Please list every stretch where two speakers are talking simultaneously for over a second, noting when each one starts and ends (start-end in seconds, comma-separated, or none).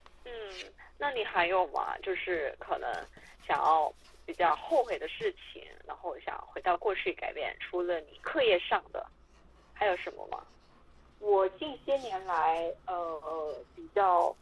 none